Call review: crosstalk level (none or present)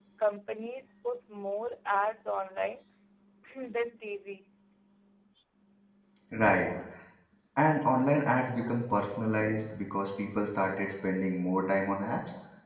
none